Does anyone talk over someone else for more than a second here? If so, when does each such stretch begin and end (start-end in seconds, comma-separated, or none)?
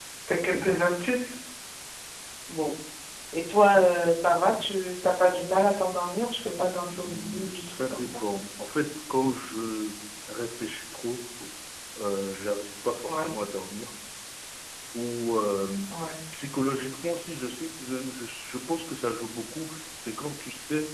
6.9-8.2